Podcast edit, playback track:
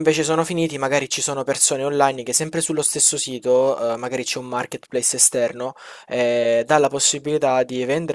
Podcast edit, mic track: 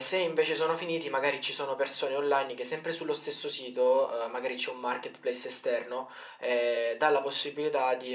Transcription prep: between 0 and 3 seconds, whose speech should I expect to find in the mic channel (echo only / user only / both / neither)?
echo only